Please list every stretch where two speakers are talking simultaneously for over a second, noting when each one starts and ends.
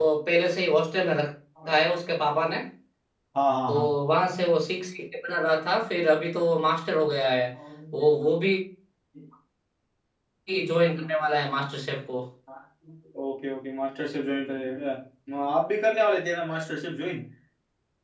none

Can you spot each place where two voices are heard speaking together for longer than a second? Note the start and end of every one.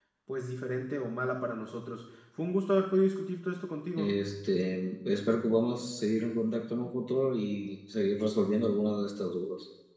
none

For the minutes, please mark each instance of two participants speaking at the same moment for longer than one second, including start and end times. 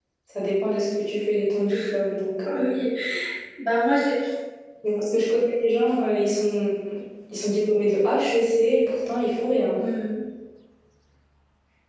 none

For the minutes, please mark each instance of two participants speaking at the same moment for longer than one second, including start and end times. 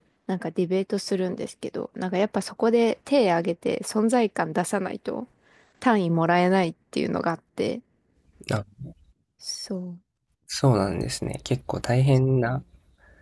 none

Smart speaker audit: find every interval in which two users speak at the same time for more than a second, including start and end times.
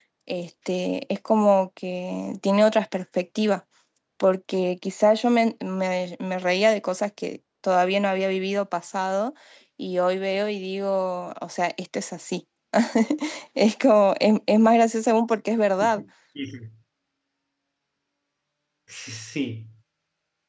none

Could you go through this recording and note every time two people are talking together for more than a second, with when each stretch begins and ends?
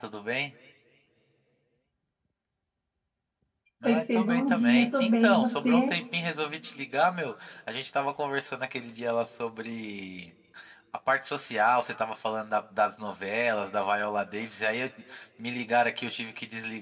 3.8-6.0

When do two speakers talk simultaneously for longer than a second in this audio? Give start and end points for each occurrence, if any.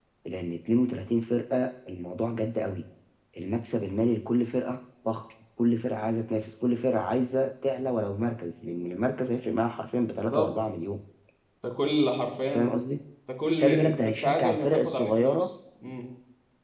13.6-15.4

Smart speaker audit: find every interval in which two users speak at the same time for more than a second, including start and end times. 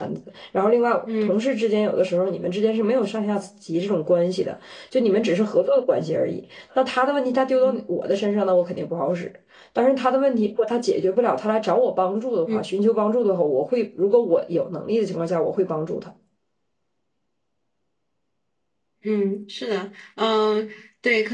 none

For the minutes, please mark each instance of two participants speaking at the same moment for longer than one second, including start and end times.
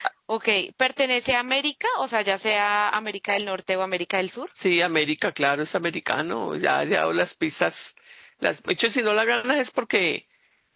none

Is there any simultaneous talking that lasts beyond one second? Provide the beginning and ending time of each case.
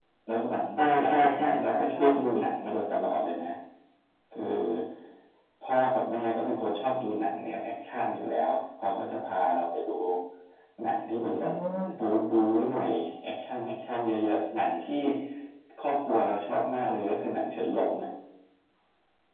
1.0-2.5

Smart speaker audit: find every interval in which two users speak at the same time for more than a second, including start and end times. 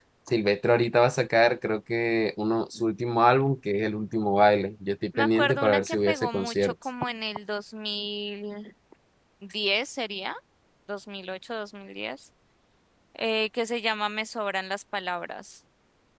5.2-6.7

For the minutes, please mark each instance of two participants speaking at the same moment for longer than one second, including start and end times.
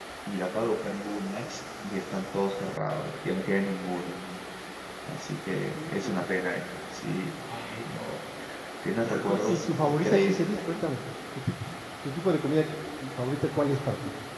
9.1-10.5

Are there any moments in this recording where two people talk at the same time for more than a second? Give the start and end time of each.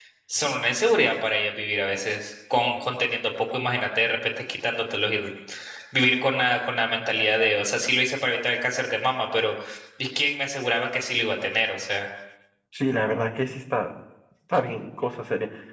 none

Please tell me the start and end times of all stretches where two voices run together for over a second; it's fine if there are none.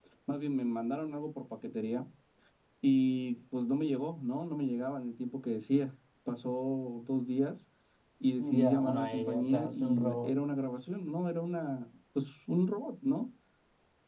8.6-10.3

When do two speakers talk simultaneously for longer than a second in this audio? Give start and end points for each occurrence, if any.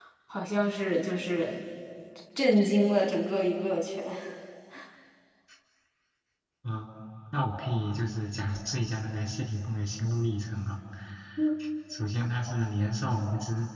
none

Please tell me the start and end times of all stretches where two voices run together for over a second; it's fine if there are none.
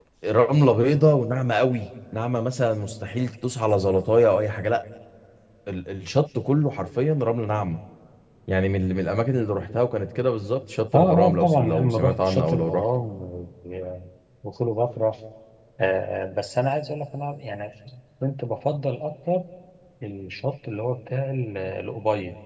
10.9-12.8

